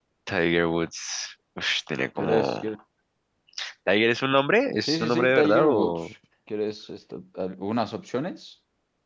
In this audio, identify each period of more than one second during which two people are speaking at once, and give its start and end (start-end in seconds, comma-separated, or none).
4.8-6.1